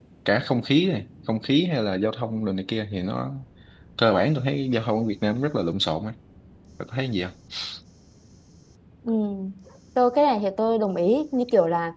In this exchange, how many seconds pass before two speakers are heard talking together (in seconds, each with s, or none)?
none